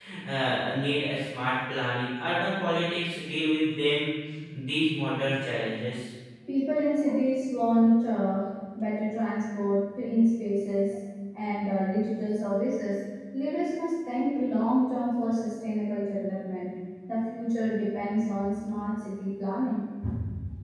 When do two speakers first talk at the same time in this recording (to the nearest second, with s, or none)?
none